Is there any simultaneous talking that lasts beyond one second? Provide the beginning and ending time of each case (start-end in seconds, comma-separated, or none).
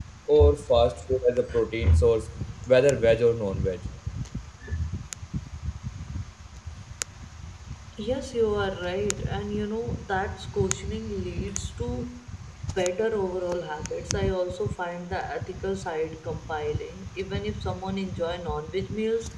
none